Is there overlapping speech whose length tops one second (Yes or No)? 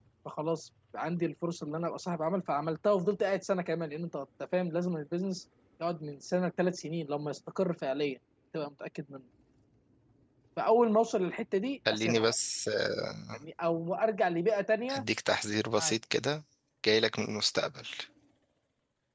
No